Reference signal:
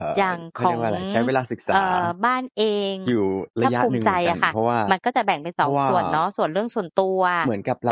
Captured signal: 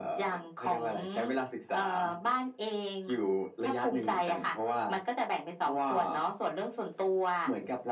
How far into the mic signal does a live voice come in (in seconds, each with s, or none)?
none